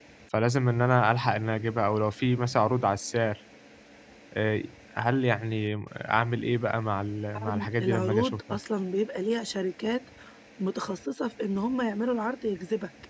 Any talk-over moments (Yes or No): Yes